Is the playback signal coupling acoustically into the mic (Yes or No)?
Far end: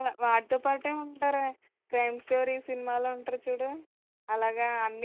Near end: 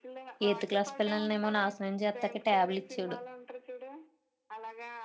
Yes